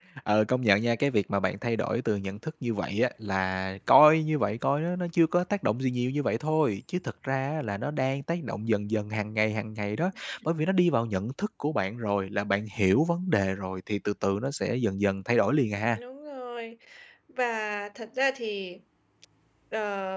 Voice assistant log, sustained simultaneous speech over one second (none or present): none